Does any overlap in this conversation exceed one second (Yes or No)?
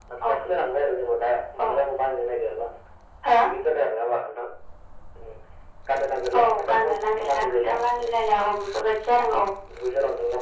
Yes